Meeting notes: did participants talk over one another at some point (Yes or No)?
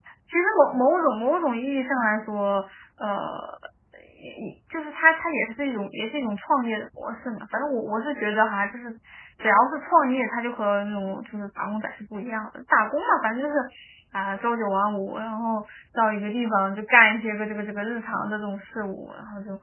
No